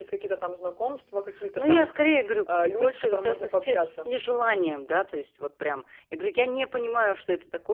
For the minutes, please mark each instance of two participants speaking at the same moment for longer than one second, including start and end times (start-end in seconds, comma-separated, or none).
2.5-4.1